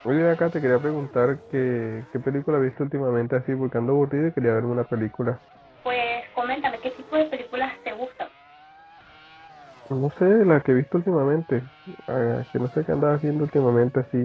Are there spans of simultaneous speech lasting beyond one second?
No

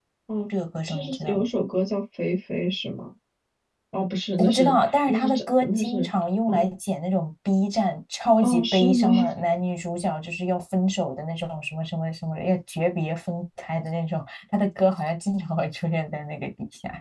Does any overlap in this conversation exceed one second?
Yes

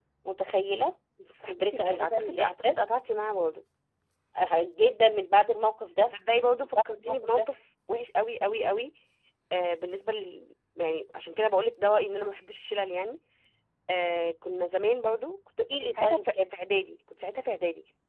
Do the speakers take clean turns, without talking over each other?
No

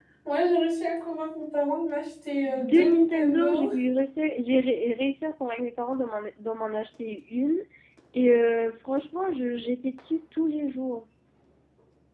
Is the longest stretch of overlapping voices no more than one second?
No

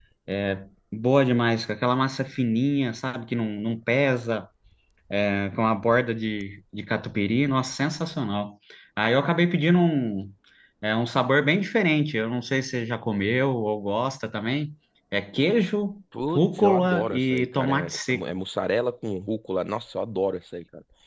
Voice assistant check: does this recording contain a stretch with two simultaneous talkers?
Yes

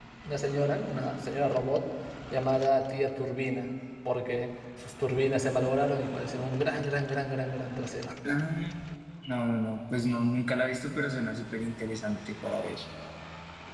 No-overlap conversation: Yes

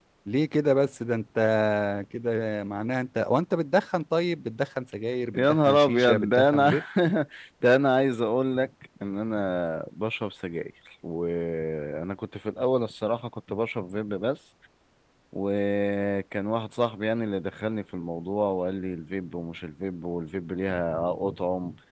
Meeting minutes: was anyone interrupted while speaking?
Yes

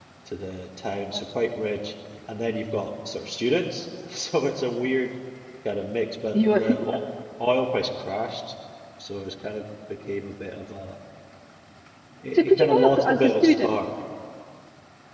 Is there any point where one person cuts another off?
Yes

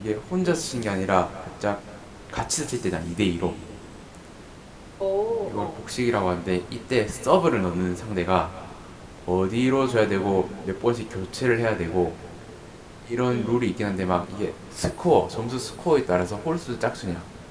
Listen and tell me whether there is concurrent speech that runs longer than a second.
No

